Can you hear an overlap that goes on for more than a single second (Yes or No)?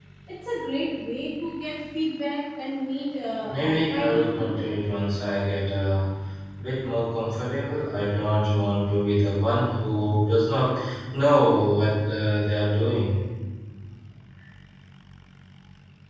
Yes